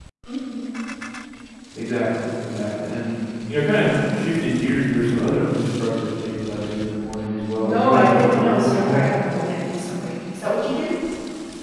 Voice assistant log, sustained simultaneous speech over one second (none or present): present